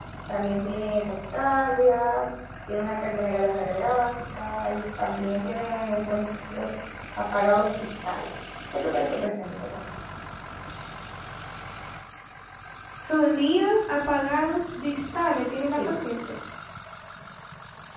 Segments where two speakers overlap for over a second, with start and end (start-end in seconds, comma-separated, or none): none